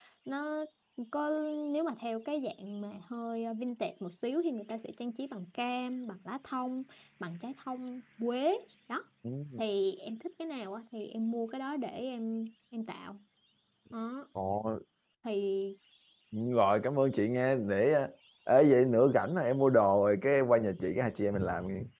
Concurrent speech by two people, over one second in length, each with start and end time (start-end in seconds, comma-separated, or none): none